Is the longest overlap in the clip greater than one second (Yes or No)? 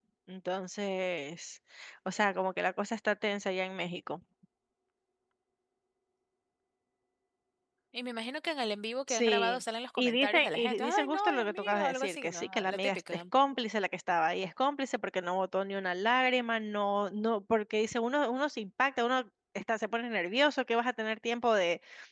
Yes